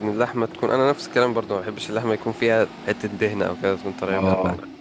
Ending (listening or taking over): taking over